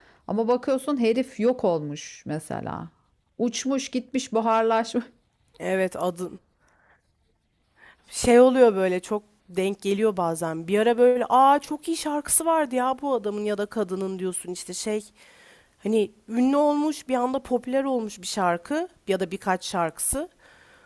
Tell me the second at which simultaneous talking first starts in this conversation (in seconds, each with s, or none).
none